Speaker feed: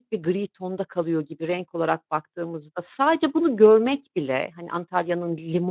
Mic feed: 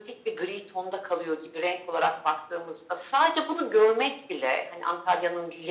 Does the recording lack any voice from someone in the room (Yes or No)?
Yes